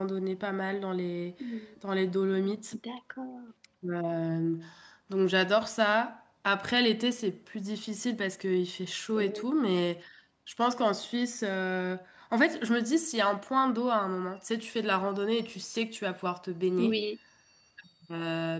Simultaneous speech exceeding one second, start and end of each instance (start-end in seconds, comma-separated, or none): none